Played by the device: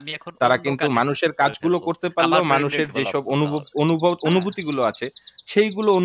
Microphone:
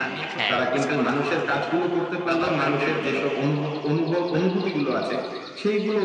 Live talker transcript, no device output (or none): হ্যাঁ, আচ্ছা মনে হয়,